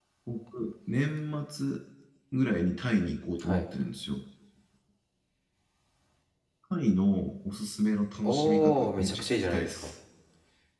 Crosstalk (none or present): present